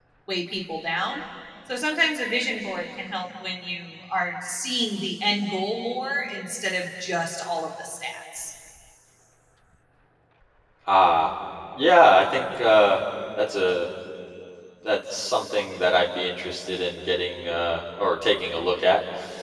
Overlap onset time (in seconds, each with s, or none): none